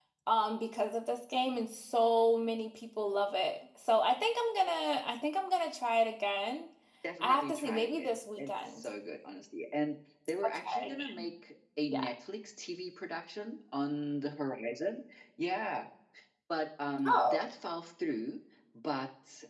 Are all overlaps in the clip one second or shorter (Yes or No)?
No